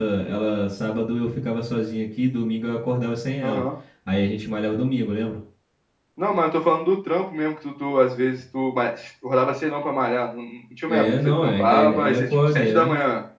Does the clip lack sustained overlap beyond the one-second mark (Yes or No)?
No